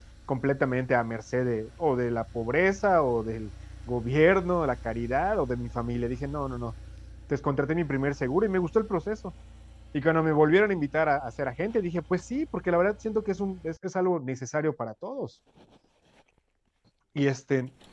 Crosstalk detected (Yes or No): No